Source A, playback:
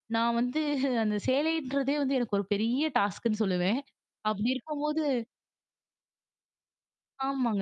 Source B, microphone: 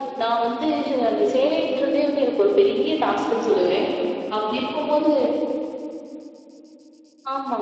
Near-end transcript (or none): none